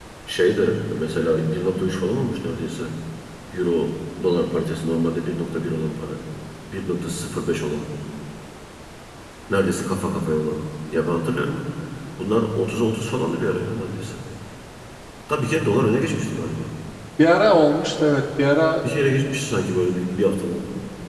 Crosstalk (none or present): none